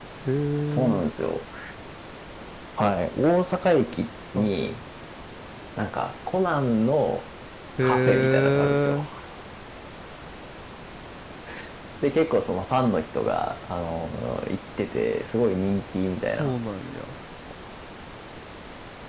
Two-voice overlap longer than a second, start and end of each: 7.8-9.0

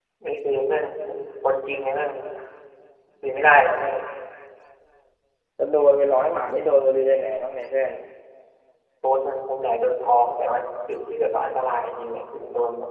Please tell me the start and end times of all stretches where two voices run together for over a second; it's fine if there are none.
none

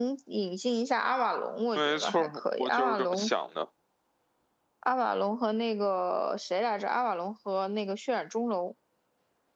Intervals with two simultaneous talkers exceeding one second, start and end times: 1.8-3.3

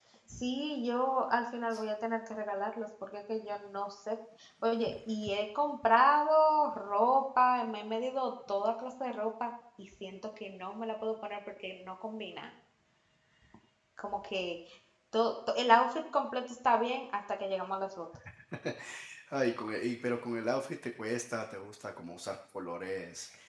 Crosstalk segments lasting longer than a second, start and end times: none

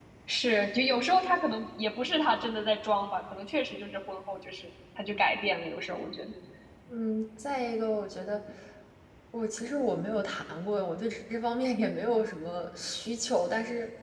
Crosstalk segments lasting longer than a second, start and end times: none

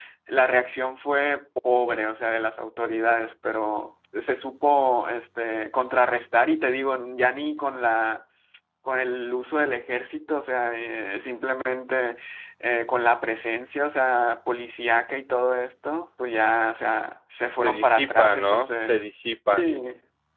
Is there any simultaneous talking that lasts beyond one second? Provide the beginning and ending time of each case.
17.6-19.7

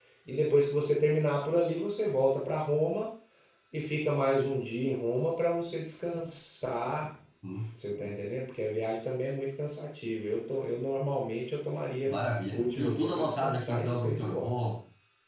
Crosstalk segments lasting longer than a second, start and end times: 12.5-14.6

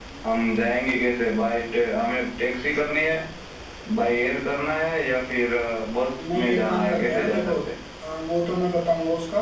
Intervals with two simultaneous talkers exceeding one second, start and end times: 6.2-7.5

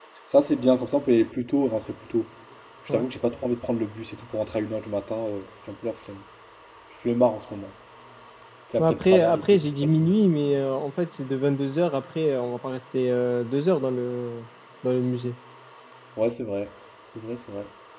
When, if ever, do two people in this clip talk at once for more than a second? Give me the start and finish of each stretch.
8.8-10.1

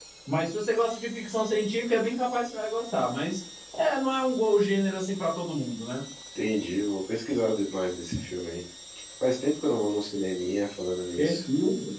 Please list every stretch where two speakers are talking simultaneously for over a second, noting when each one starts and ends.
none

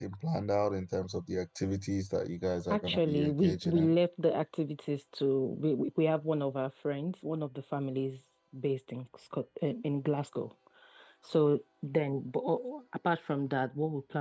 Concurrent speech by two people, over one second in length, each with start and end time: 2.7-3.9

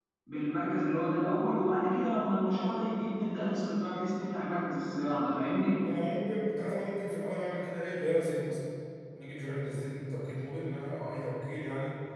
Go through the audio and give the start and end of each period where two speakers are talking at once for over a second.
none

